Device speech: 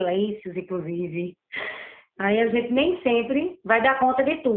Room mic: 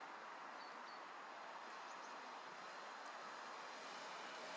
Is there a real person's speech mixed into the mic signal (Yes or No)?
No